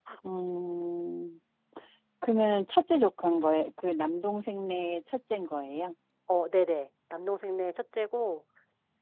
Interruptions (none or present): none